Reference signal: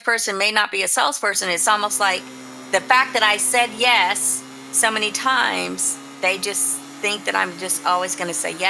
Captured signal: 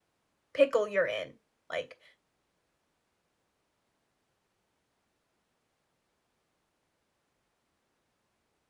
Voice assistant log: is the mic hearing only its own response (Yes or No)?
No